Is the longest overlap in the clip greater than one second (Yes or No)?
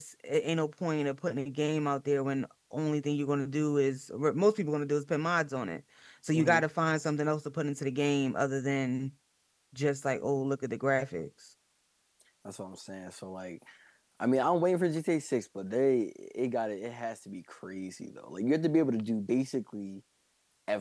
No